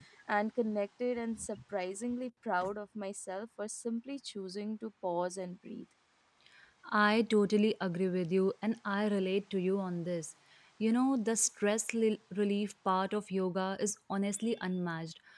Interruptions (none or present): none